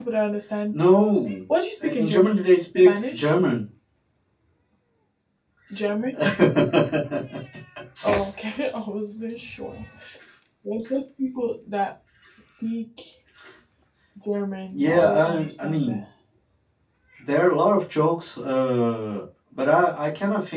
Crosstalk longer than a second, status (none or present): present